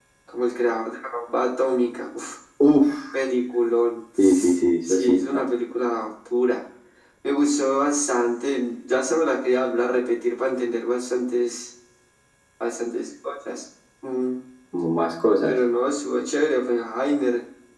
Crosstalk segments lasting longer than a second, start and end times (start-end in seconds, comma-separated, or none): 4.2-5.4